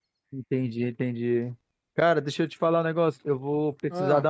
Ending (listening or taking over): listening